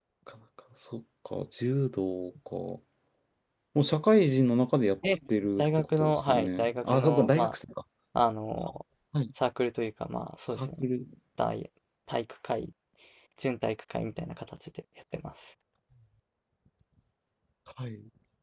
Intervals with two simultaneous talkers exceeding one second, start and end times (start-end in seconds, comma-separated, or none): 5.6-7.5